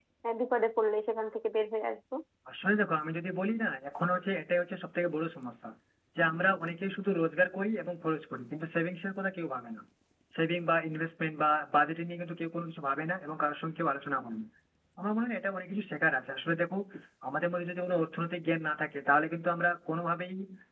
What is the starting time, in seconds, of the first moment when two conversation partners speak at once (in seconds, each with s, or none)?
none